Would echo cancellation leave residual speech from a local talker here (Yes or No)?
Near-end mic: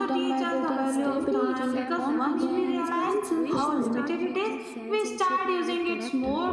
Yes